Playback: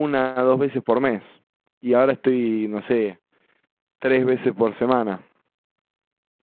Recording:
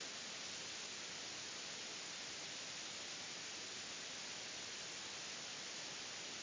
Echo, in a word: none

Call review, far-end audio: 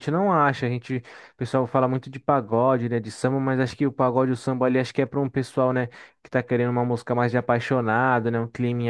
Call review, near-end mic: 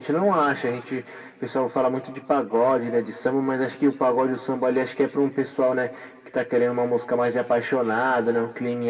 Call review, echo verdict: present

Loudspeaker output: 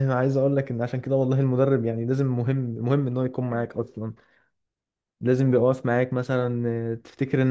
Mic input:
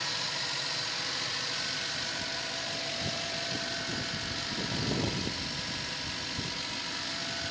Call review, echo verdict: none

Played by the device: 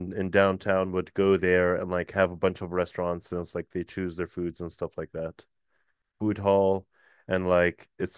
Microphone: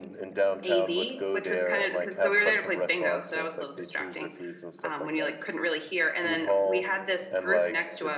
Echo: present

